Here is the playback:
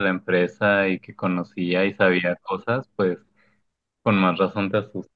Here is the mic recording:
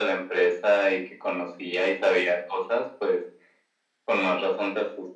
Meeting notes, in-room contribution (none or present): none